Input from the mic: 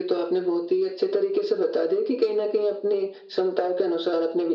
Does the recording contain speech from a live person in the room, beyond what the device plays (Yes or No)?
No